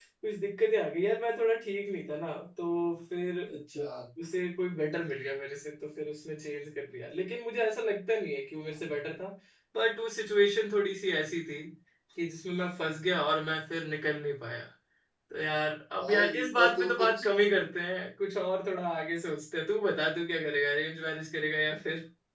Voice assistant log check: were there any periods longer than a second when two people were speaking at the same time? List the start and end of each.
16.0-17.2

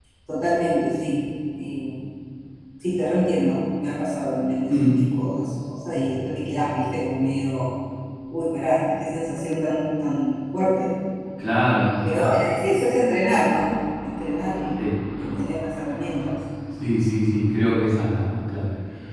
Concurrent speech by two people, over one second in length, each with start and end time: none

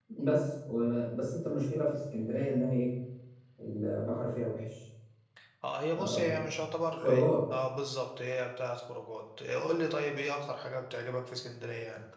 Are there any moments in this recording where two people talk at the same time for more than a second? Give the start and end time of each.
none

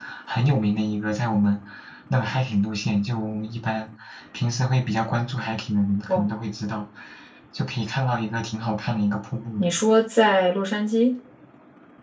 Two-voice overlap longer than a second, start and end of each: none

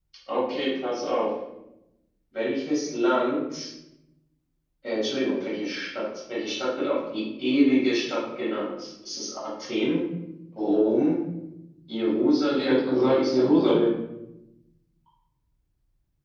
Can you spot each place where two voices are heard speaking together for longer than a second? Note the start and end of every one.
12.5-13.8

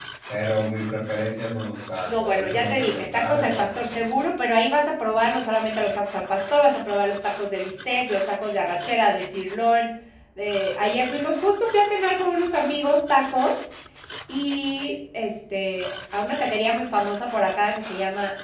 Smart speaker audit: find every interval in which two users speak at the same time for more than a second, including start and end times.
2.0-4.2

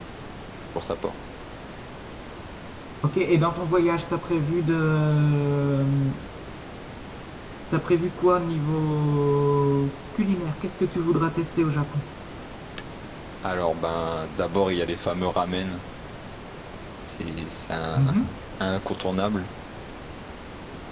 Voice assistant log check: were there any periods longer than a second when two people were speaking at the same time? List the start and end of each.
none

